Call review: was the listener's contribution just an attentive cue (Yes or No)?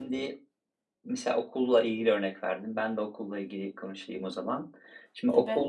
Yes